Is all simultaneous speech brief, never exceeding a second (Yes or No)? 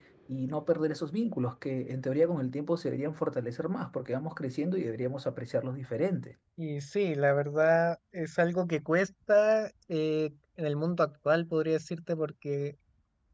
Yes